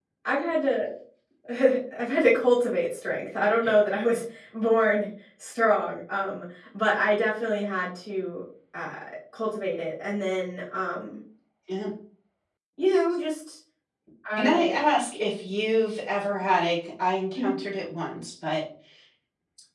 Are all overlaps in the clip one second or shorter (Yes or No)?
Yes